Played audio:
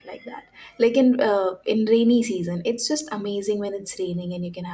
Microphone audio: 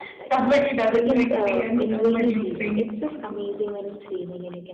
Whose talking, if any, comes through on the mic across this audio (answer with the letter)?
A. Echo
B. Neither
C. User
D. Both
D